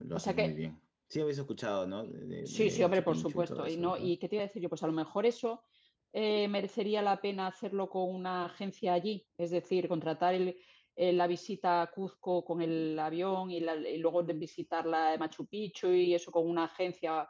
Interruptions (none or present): present